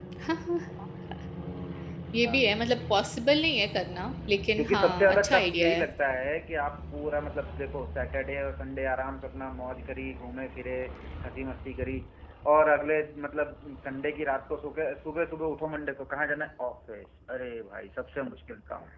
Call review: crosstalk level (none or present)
present